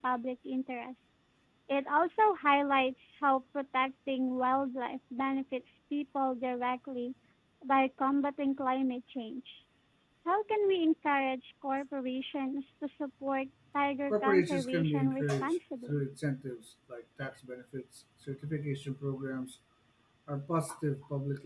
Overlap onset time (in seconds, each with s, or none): 14.1 s